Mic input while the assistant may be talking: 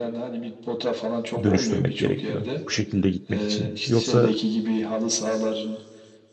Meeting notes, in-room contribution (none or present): present